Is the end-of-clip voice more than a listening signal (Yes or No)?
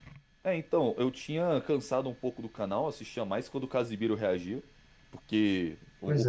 No